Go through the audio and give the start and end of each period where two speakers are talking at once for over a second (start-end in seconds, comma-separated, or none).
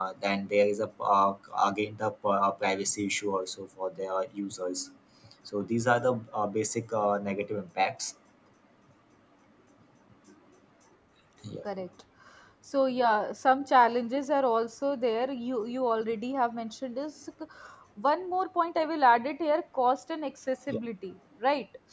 none